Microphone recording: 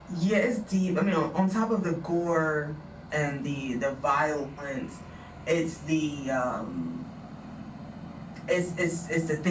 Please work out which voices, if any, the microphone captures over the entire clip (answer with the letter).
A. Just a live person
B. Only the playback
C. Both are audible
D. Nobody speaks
B